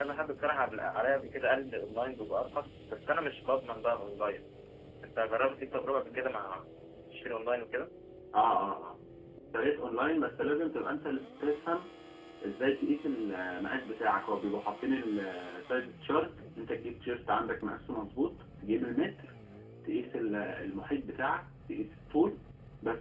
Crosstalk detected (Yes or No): No